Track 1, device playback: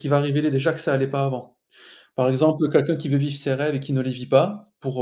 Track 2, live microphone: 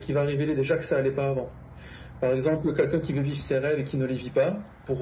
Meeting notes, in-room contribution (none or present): none